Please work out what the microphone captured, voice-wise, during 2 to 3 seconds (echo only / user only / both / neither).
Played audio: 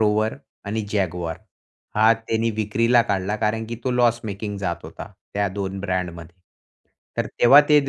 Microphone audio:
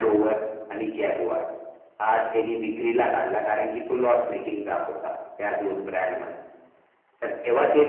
echo only